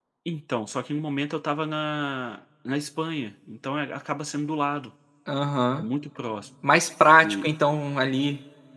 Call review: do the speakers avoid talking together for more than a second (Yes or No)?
Yes